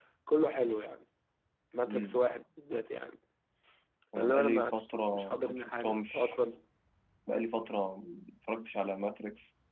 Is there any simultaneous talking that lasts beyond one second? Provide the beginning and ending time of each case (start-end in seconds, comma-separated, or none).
4.2-6.4